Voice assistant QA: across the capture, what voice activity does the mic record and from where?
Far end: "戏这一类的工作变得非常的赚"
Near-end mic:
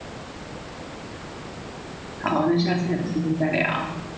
user only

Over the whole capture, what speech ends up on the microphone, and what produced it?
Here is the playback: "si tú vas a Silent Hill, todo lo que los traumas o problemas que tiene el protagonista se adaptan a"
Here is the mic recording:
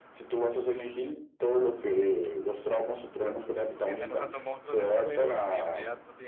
both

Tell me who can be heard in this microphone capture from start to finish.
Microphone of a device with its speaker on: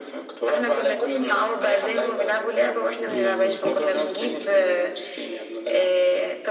both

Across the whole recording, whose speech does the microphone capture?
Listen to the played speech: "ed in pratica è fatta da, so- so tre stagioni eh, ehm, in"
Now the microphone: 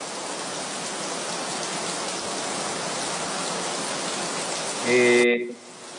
user only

